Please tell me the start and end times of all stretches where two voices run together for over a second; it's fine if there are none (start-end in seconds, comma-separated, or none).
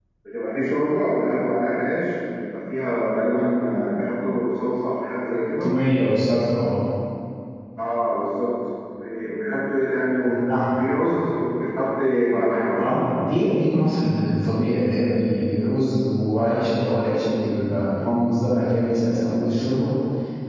none